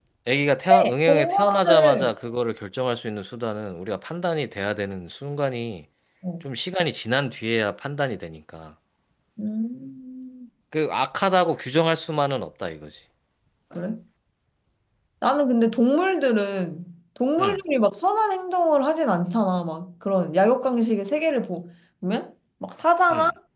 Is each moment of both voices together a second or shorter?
No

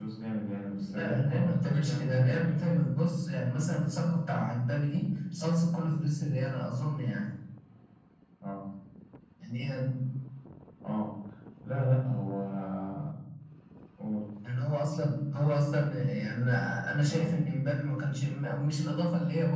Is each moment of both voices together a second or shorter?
No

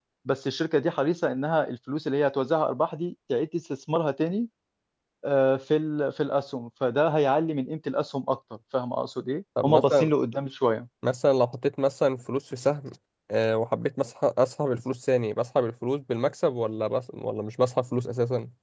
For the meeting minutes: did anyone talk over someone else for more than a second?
No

